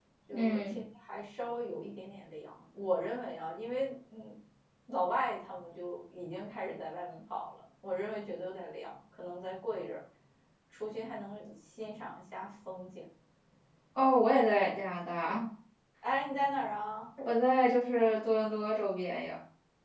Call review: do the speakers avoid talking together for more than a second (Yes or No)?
Yes